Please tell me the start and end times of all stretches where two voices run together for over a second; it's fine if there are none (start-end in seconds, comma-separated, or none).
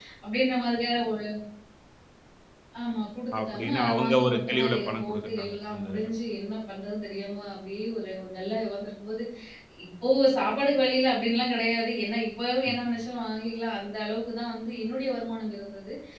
3.4-6.1